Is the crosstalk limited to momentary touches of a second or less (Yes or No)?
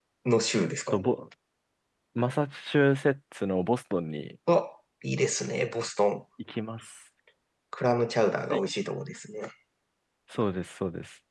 Yes